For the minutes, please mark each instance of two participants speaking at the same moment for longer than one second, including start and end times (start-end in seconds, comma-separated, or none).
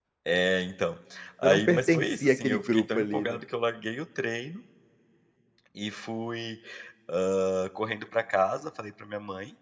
1.4-3.4